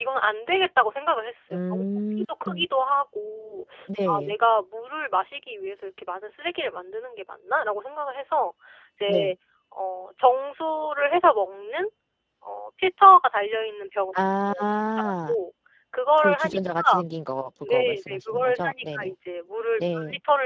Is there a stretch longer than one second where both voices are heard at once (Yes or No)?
Yes